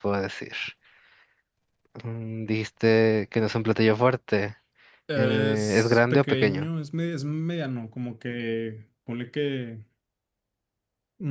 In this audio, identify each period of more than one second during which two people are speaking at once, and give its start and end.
5.2-6.7

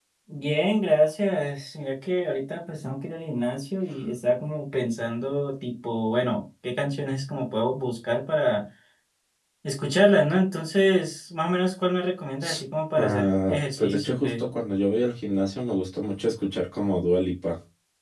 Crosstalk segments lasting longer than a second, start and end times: 13.0-14.4

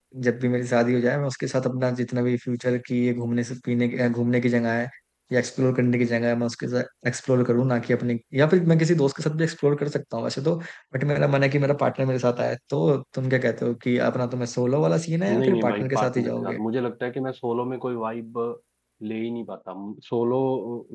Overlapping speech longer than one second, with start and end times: 15.3-16.6

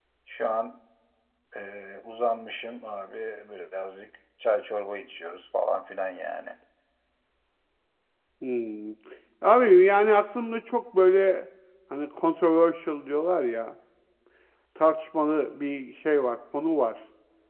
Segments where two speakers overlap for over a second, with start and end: none

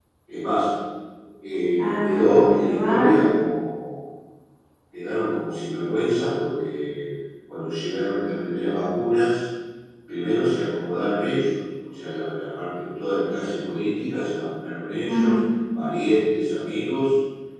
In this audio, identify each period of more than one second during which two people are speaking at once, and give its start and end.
1.8-3.1

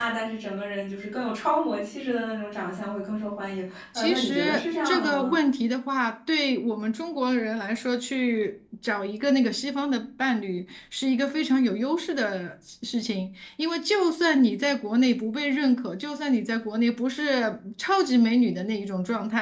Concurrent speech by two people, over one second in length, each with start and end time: 4.0-5.3

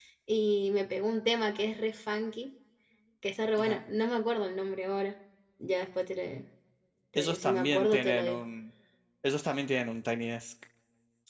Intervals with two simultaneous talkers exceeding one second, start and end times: 7.2-8.4

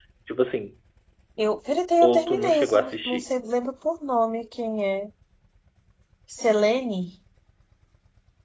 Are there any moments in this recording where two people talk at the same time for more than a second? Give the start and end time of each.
2.0-3.2

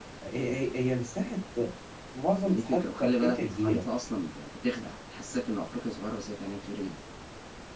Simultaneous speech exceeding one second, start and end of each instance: 2.4-3.8

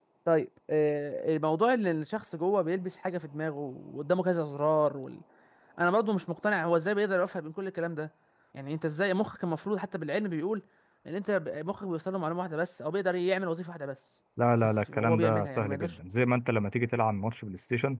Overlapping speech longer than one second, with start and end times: 14.6-15.9

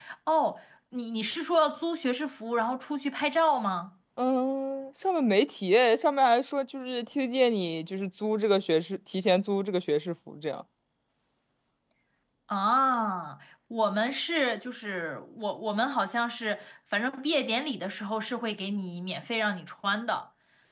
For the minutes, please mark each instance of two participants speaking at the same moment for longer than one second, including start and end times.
none

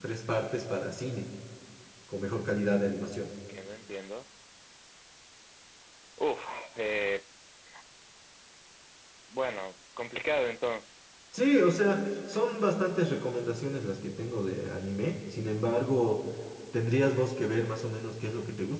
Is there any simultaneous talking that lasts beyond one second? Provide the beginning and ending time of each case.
none

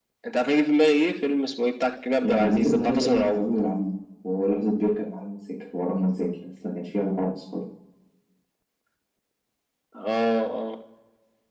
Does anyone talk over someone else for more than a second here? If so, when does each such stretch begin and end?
2.2-3.4

